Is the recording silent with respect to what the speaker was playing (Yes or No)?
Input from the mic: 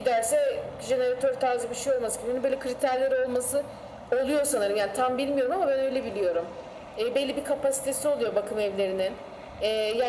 No